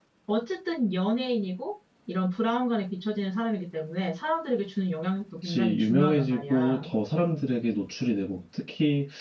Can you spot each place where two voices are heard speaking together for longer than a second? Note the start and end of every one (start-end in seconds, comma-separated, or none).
5.4-6.8